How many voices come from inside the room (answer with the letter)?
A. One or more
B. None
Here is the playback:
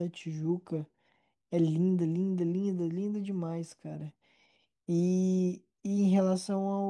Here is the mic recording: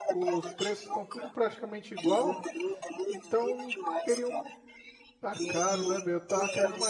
A